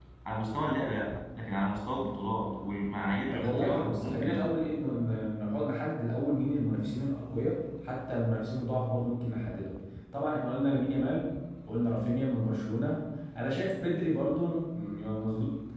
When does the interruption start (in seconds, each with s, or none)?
3.3 s